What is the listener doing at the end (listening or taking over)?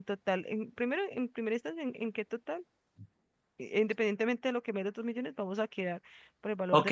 taking over